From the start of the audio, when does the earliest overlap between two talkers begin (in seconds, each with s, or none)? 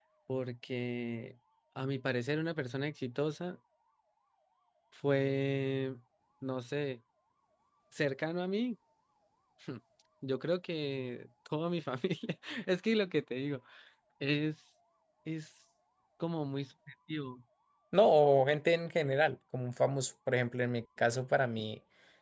none